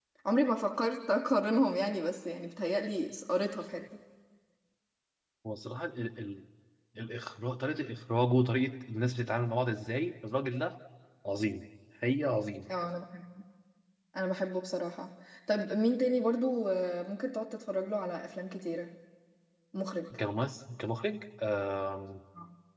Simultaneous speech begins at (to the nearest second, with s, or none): none